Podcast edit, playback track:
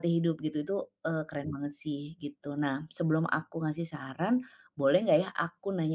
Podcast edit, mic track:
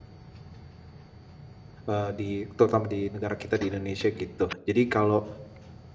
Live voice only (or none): Eee, di terutama di negara kita, di Indonesia, gitu. Jadi kalau,